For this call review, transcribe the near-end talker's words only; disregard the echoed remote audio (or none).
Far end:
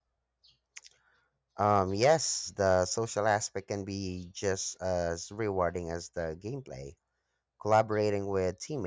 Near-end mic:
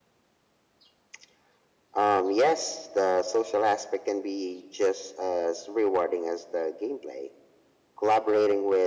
none